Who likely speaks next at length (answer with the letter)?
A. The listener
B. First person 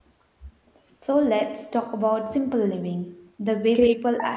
A